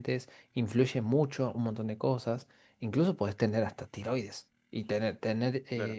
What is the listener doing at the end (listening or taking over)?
listening